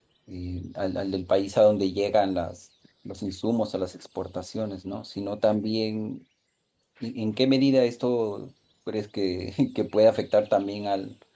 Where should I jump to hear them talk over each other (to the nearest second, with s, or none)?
none